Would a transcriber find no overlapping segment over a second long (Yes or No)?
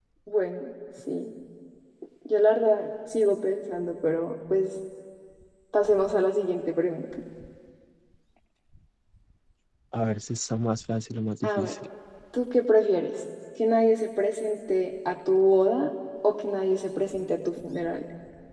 Yes